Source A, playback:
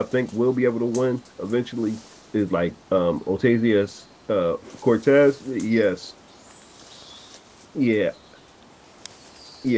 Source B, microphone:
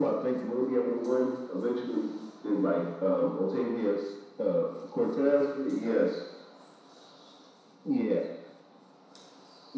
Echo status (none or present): present